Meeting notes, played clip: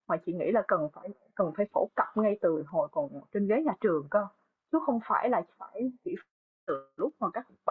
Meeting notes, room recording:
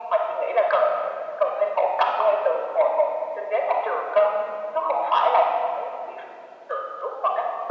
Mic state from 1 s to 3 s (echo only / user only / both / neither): echo only